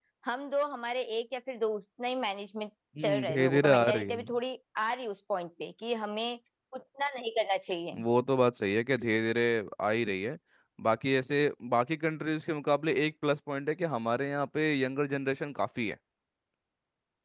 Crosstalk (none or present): present